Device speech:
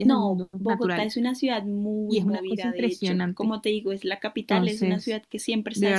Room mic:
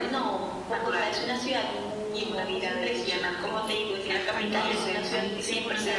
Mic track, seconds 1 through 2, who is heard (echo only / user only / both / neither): echo only